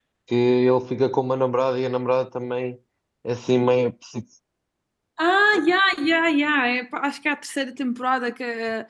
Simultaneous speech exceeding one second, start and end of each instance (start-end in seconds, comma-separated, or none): none